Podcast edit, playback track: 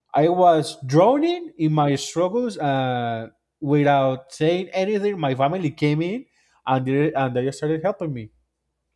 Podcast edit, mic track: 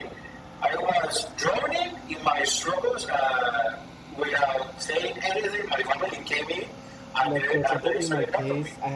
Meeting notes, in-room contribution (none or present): present